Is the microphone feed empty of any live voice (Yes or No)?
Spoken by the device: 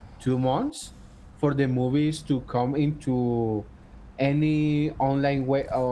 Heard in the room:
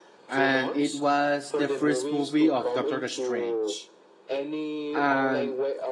No